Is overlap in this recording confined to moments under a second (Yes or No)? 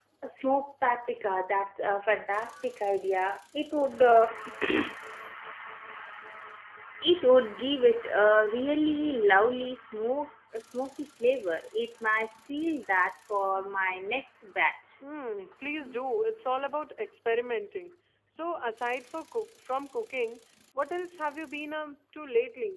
Yes